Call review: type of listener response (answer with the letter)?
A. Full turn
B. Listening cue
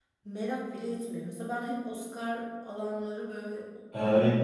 A